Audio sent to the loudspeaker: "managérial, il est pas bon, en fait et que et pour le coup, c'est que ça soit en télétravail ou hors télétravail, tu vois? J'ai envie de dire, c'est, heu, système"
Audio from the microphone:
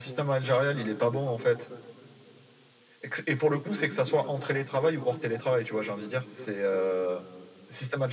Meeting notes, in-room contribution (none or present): none